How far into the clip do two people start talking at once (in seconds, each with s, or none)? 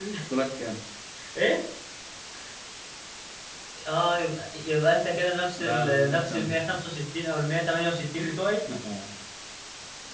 5.6 s